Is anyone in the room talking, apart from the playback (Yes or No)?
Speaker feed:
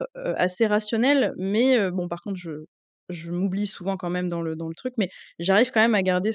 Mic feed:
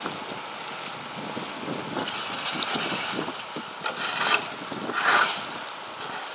No